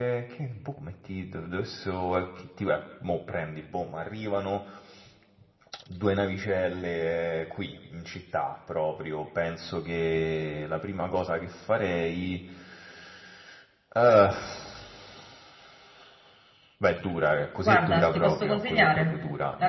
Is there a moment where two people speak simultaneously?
Yes, from 17.6 s

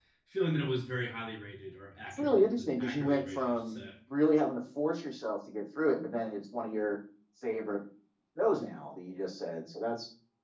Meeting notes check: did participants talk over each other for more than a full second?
Yes, from 2.1 s

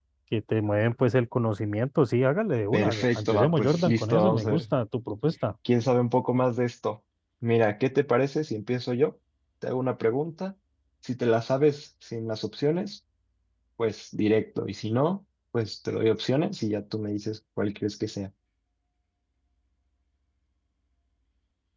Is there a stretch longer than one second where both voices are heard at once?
Yes, from 2.7 s

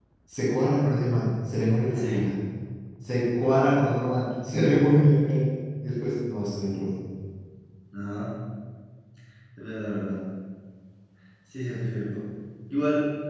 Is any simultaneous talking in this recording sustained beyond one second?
No

